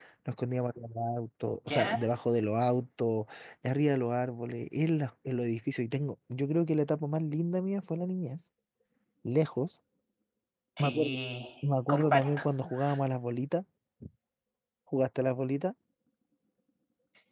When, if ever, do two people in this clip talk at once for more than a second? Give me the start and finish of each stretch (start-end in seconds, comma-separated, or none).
none